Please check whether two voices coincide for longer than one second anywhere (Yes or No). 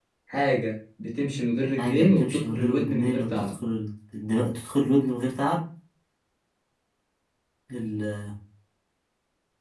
Yes